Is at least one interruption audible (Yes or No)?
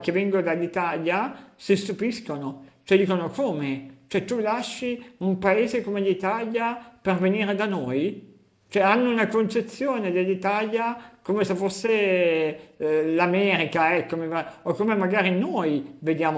No